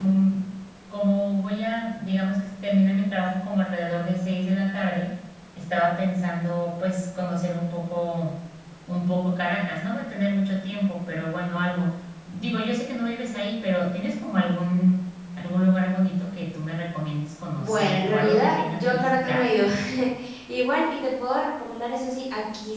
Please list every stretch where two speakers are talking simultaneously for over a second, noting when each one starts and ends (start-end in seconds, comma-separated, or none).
17.6-19.4